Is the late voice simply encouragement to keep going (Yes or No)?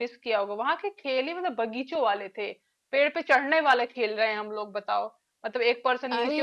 Yes